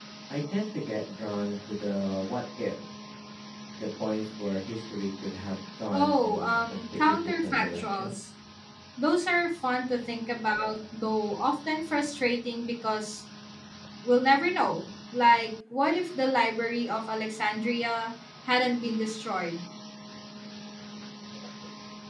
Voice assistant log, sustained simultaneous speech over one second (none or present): present